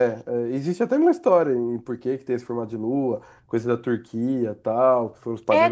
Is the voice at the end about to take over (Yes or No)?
Yes